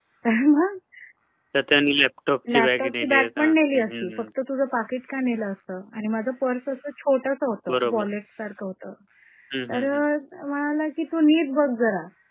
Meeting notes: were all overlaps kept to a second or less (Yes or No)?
No